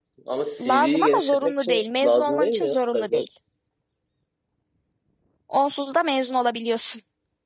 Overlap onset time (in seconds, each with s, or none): 0.6 s